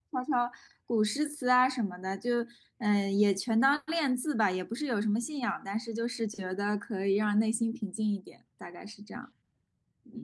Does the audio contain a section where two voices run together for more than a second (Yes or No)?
No